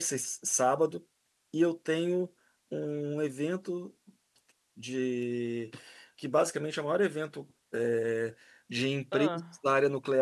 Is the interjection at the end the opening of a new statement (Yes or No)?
No